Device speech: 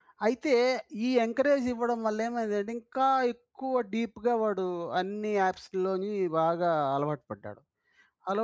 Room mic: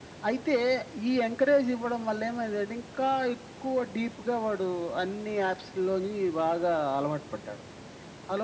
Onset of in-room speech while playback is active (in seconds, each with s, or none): none